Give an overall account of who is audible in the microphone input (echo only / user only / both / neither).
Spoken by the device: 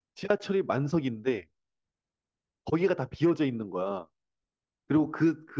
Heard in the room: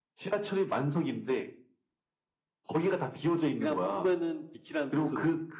both